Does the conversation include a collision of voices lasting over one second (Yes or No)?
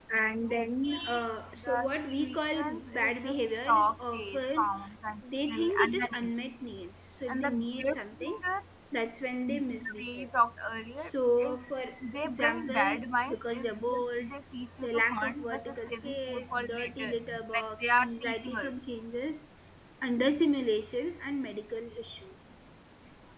Yes